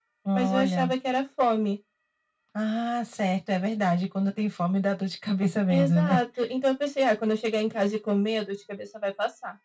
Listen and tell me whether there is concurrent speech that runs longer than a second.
No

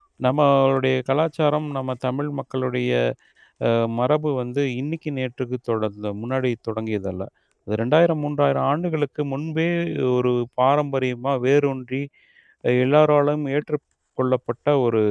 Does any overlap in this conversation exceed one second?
No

